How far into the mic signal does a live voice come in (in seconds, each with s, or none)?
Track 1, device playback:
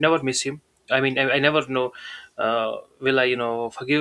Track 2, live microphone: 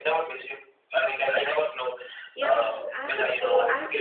2.3 s